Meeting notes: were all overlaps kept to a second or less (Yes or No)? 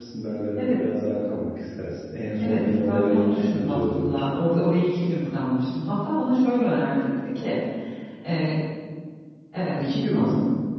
No